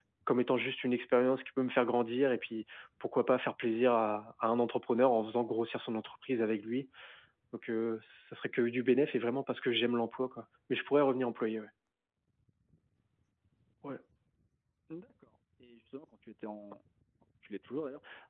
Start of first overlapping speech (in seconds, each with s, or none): none